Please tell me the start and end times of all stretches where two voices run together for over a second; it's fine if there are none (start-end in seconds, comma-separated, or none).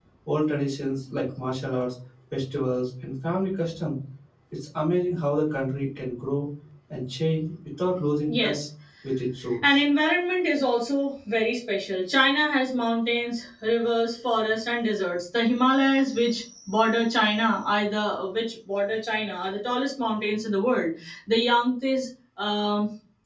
none